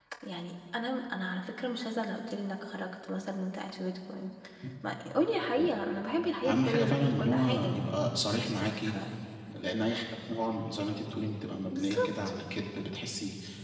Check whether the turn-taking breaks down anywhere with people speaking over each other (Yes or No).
Yes